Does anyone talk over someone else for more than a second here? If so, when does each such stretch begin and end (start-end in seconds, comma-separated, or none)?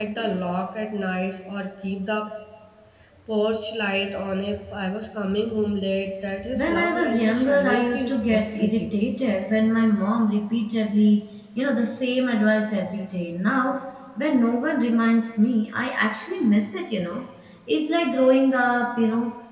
6.5-8.9